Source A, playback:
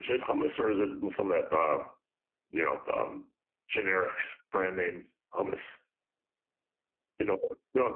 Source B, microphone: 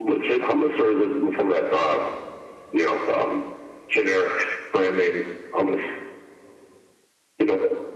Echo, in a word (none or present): present